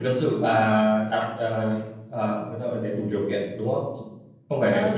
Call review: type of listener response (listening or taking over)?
taking over